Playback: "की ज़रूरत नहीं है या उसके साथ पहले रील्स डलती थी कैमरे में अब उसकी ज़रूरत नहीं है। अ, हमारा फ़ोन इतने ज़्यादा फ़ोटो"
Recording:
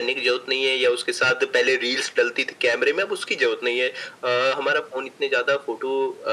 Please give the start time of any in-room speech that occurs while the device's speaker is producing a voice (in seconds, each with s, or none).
none